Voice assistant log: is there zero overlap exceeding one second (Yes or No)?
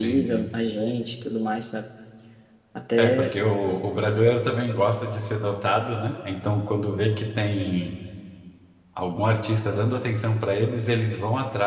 Yes